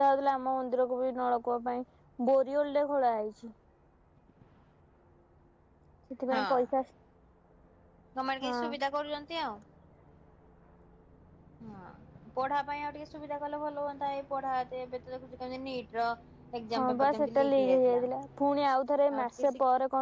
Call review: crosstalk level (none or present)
present